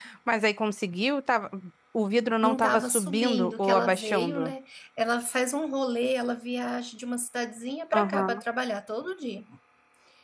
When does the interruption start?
2 s

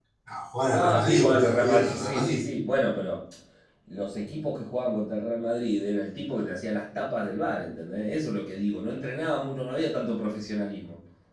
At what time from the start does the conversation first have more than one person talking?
1 s

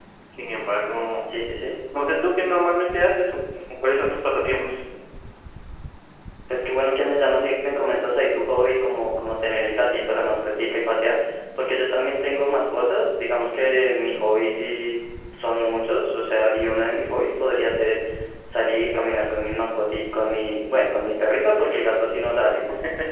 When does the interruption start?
none

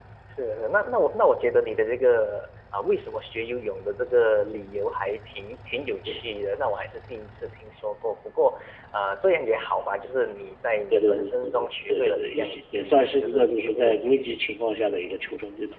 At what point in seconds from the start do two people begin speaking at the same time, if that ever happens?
11 s

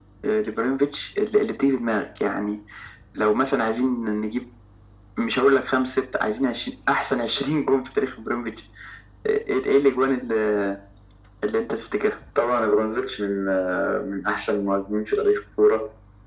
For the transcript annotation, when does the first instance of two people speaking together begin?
none

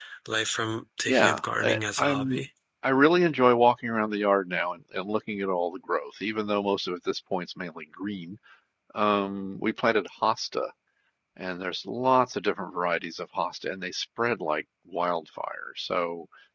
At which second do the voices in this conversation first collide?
1 s

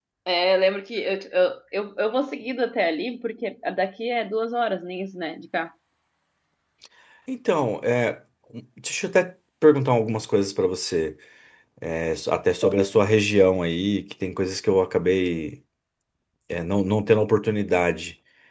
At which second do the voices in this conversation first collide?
none

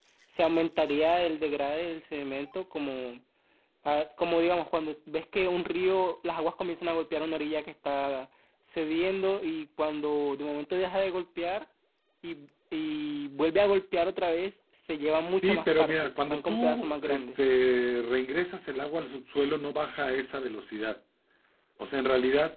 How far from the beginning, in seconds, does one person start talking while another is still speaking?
15 s

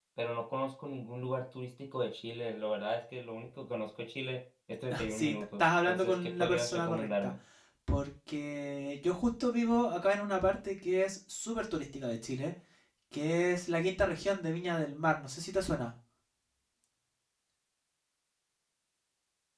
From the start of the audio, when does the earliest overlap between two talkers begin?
5 s

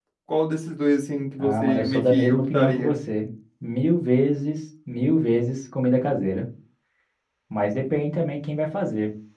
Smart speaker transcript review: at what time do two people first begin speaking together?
1 s

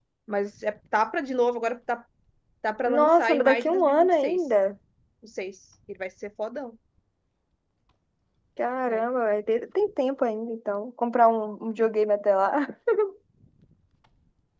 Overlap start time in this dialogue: 3 s

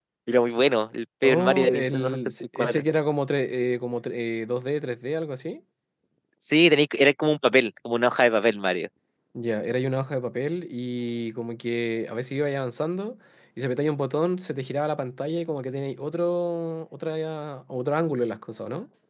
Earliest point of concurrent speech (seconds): 1 s

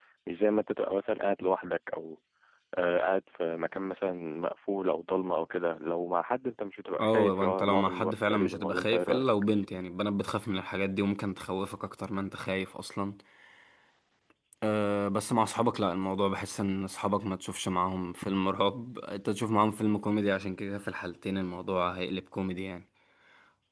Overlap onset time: 7 s

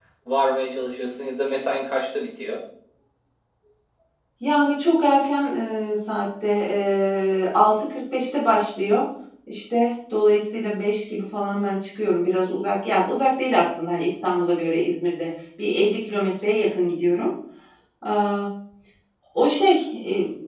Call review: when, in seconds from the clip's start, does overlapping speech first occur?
none

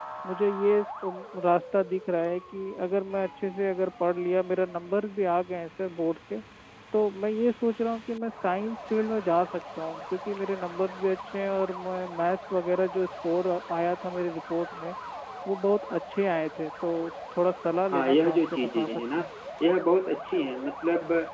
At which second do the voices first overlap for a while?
18 s

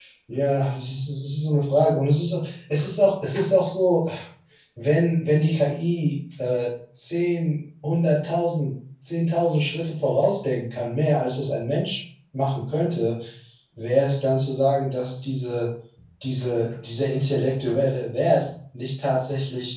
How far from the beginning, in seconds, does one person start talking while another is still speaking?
none

